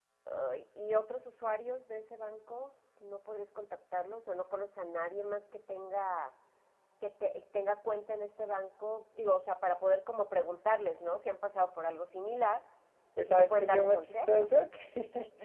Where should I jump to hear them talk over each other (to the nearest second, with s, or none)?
13 s